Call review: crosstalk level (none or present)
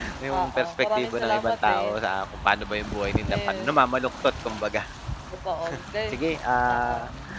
present